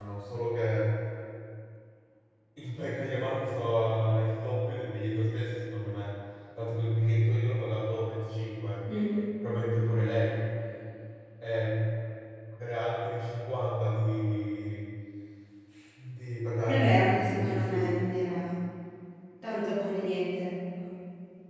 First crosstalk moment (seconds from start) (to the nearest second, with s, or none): 17 s